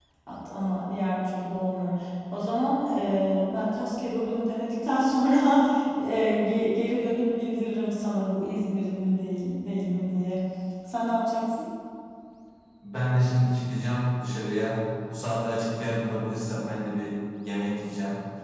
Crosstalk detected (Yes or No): No